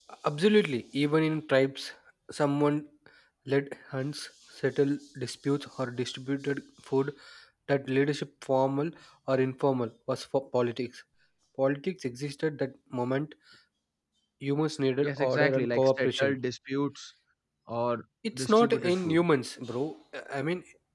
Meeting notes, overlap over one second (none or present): present